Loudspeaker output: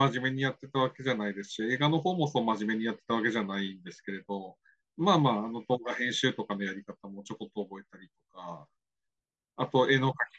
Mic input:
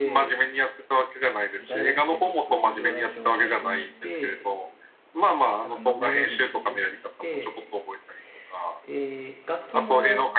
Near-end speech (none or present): present